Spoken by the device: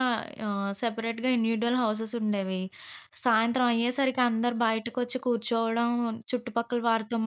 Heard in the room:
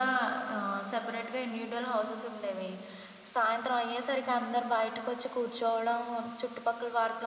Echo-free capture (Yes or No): No